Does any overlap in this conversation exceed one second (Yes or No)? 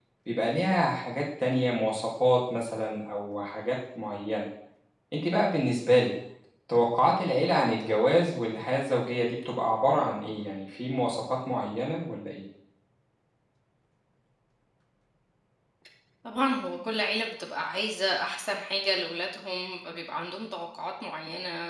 No